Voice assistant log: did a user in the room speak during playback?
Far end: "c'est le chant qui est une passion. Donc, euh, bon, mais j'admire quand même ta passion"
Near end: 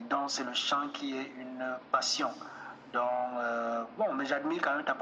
No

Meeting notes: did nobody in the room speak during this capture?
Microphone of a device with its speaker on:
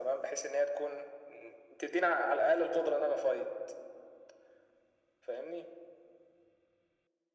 Yes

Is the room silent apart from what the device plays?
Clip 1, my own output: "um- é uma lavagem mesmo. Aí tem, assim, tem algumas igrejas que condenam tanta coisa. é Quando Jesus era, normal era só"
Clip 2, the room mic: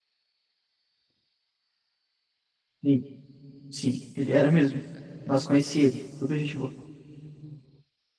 No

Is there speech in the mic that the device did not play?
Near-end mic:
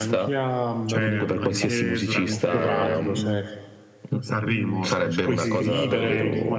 Yes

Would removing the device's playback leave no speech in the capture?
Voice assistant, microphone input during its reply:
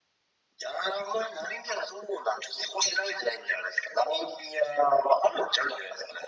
Yes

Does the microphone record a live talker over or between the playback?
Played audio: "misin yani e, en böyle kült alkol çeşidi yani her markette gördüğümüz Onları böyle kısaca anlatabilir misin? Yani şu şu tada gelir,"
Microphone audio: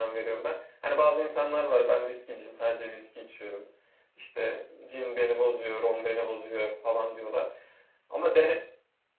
Yes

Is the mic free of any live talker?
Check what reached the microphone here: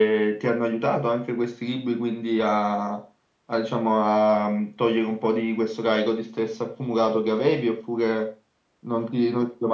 Yes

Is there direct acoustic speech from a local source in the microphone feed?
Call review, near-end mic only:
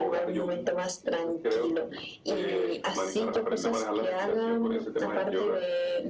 No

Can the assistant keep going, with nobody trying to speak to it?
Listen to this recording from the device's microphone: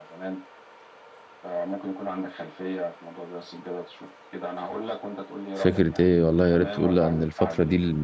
No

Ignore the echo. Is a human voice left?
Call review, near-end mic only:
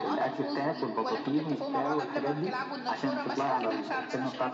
Yes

